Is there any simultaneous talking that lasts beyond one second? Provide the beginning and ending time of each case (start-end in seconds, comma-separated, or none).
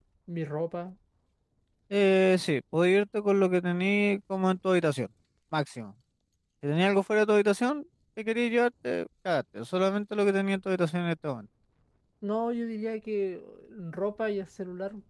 none